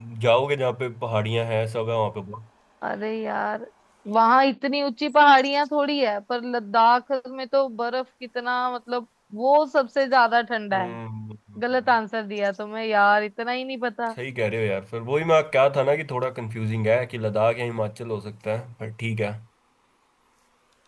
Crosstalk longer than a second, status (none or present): none